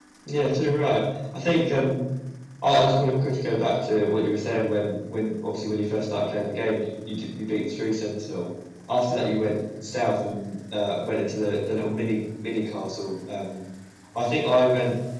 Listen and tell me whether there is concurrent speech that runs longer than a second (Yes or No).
No